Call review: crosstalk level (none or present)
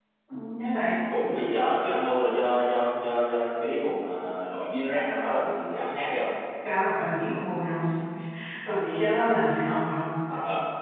none